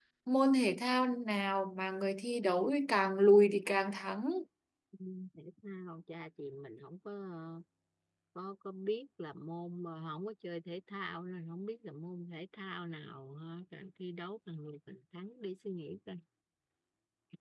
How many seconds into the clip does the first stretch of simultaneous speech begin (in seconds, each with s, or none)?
none